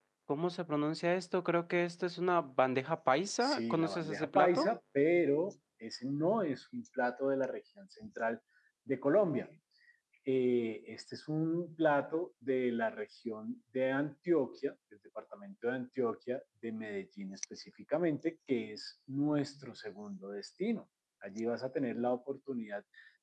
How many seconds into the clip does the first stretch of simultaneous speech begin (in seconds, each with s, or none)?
3.4 s